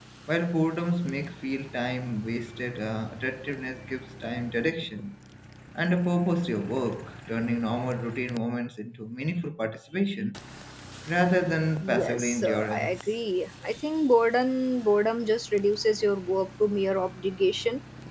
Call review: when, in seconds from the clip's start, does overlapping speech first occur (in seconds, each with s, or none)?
11.8 s